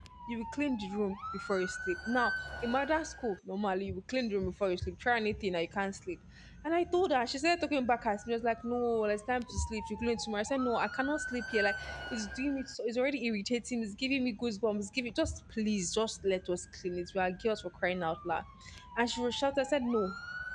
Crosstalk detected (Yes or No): No